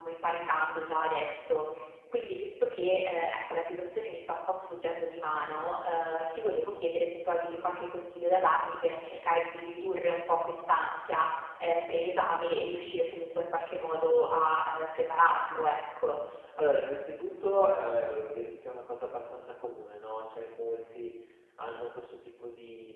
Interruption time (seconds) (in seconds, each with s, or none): none